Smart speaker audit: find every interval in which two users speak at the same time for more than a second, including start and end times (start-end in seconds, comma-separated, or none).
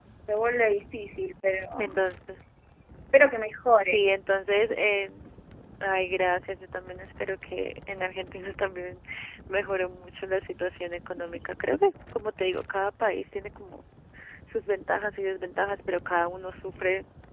none